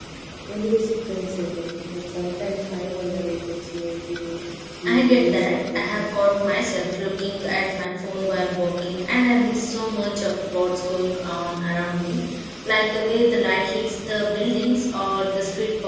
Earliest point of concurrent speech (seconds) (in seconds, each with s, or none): 4.9 s